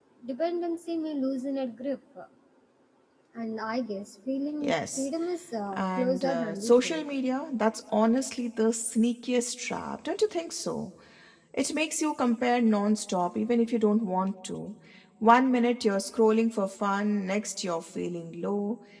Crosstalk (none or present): present